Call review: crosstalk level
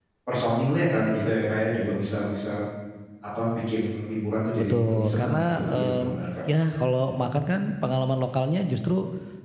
present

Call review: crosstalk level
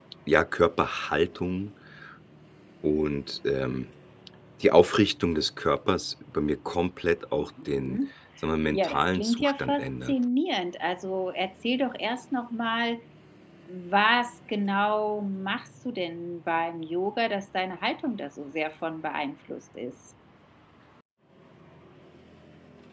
present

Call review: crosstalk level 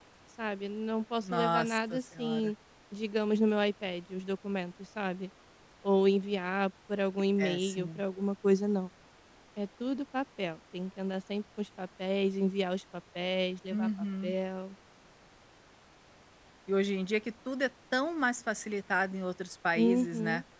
present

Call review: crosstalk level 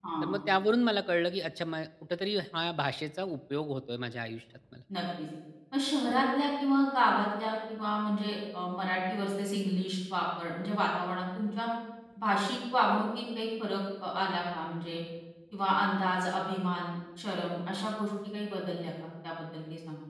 none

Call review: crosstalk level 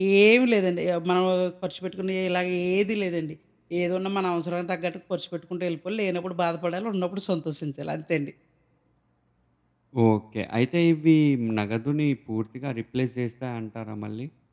none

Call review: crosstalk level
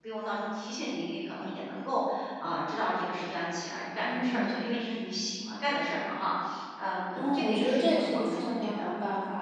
present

